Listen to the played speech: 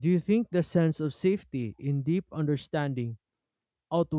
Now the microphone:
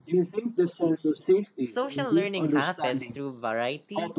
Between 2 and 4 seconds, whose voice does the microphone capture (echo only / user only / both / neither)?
both